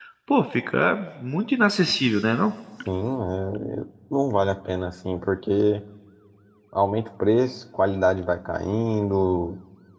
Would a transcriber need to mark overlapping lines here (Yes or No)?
No